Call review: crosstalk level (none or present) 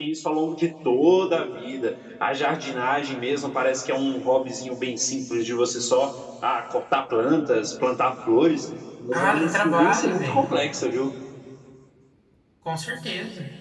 present